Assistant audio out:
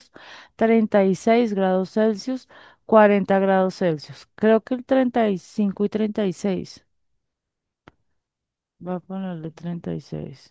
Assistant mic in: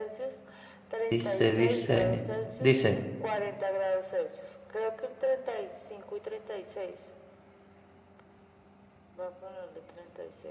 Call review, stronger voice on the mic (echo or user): user